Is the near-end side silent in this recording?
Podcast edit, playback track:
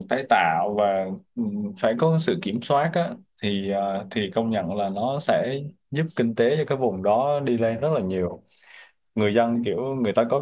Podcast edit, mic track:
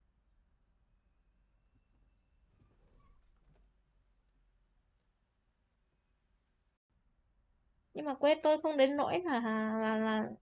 No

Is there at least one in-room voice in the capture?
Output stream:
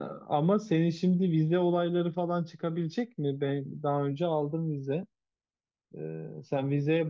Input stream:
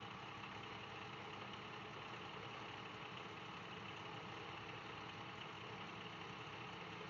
No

